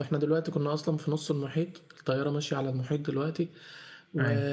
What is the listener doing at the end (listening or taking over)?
listening